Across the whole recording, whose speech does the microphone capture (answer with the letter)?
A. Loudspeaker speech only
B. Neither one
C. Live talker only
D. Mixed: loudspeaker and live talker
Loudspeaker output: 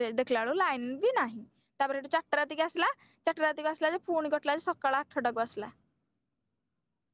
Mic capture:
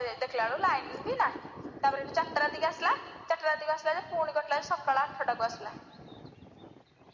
A